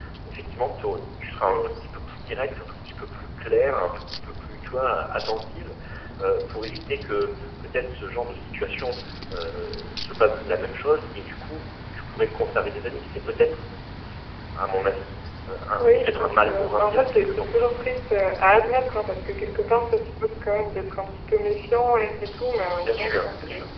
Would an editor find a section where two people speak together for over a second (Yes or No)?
Yes